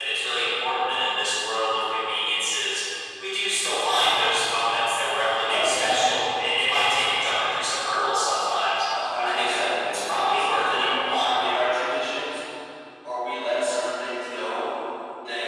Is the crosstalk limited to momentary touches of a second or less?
No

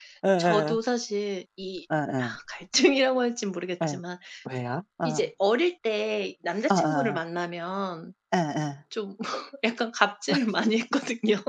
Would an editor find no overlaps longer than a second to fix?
Yes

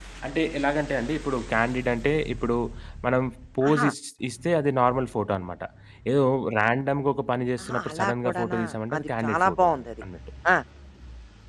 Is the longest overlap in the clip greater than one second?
Yes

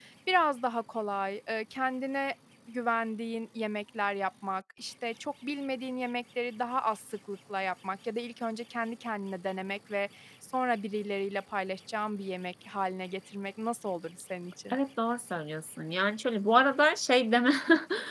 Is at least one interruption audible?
No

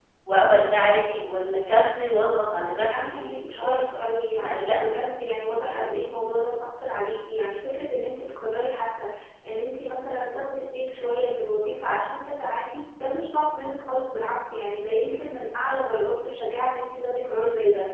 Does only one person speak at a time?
No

